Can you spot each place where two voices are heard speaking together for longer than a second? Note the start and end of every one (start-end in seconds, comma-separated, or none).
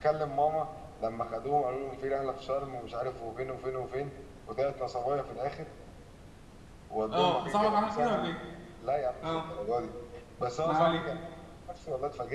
7.1-8.3